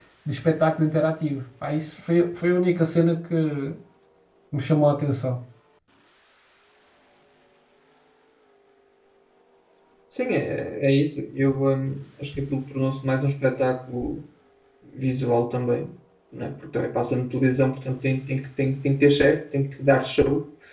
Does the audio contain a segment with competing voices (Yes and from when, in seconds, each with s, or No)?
No